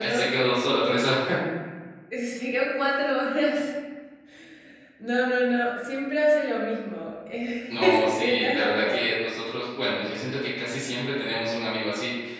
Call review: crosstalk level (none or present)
present